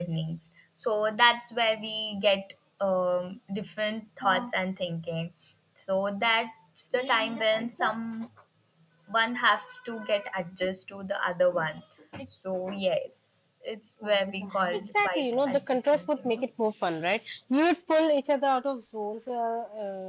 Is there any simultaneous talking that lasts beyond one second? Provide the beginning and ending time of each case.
14.7-16.4

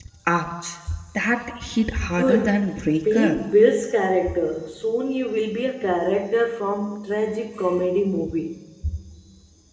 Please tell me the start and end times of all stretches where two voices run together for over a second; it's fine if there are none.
2.1-3.4

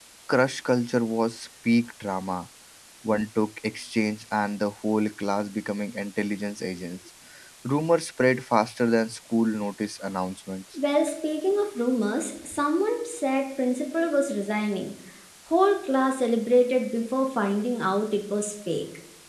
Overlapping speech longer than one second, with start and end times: none

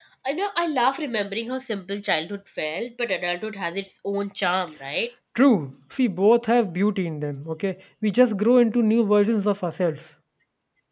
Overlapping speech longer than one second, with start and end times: none

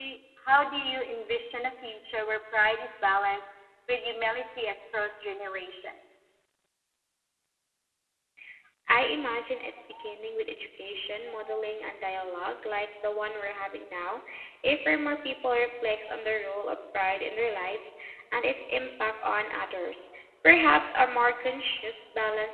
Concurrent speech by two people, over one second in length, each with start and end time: none

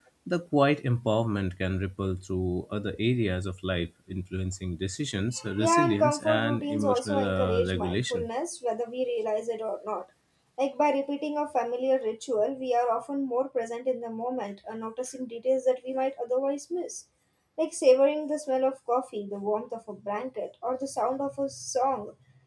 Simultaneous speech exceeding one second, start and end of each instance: 5.6-8.3

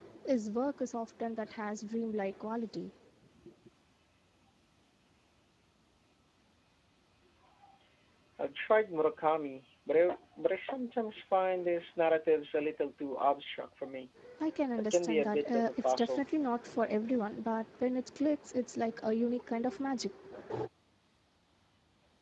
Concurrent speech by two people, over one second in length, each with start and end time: 14.9-16.2

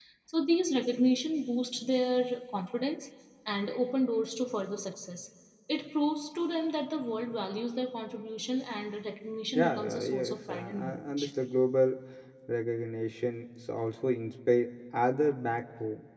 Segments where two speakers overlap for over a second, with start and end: 9.6-11.3

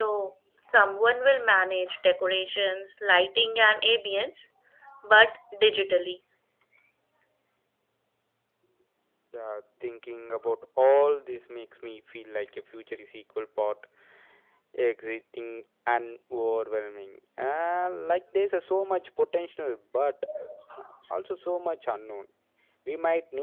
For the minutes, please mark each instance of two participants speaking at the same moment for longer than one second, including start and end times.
none

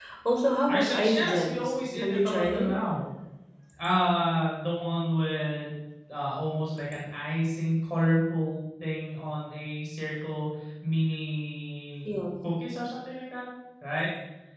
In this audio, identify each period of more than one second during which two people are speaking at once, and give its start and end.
0.7-2.7

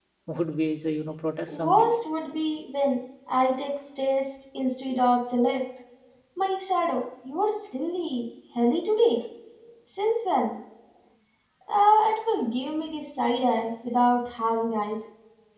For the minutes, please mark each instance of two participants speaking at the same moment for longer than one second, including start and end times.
none

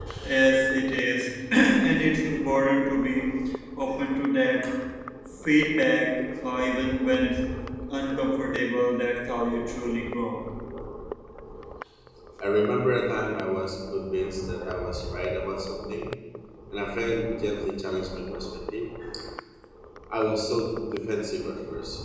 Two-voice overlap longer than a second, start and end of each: none

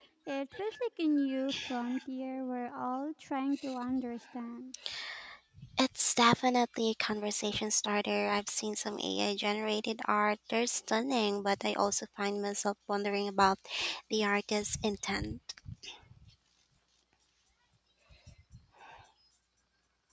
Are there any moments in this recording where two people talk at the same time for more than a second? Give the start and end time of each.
none

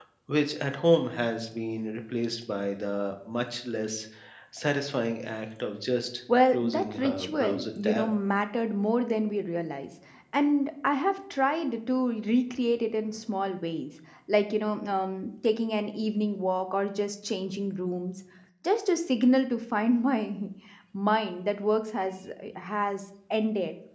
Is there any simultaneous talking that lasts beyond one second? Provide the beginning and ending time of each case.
6.5-8.1

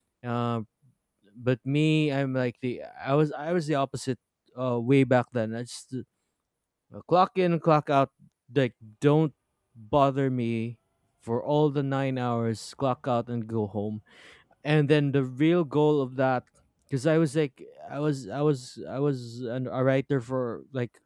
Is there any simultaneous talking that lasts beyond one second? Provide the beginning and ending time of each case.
none

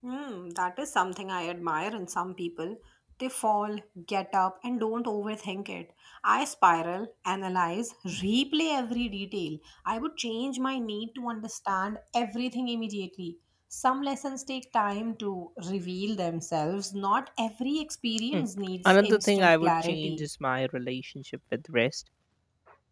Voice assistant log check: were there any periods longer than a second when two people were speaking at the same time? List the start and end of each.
18.8-20.2

